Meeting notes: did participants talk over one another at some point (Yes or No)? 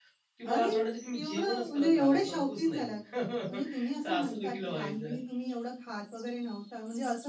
Yes